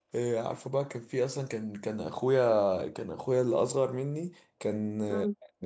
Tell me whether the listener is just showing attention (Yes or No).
Yes